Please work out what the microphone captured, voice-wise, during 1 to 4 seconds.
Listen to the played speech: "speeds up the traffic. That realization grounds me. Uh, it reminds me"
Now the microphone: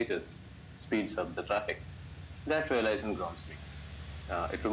echo only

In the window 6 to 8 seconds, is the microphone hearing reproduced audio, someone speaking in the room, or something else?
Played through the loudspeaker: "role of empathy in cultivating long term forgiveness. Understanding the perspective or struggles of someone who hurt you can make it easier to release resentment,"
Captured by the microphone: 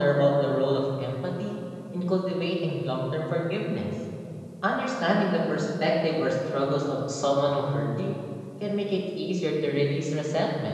echo only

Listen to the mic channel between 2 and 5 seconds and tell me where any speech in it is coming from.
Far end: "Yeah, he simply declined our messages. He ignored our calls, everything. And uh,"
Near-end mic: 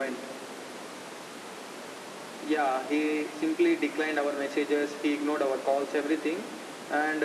echo only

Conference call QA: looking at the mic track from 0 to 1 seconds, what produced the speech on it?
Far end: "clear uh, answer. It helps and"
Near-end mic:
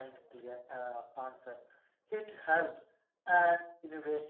echo only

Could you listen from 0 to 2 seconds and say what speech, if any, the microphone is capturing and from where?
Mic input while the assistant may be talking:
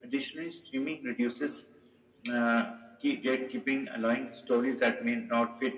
echo only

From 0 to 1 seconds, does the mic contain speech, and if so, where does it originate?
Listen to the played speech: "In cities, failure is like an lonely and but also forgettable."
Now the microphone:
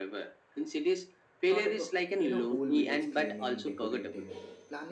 echo only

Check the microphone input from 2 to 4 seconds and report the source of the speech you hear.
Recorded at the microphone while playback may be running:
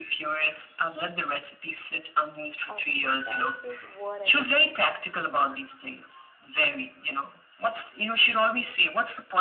both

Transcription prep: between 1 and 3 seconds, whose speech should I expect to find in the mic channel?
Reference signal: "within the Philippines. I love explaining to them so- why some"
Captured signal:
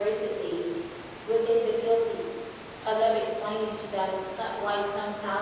echo only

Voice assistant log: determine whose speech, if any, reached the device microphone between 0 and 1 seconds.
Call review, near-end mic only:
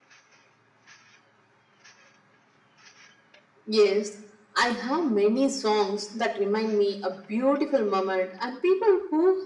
neither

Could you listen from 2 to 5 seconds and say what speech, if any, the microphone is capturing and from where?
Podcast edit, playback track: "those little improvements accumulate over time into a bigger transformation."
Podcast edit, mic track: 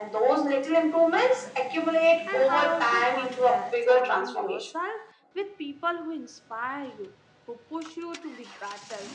both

